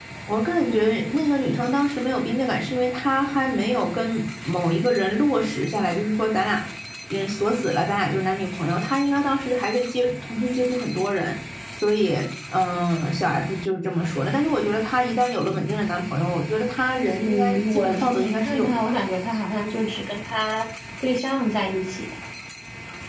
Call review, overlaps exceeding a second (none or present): present